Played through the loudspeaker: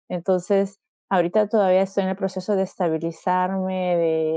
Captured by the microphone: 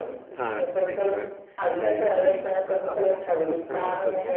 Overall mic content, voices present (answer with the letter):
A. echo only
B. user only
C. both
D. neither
C